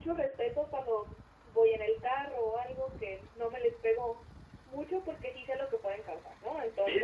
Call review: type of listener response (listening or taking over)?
taking over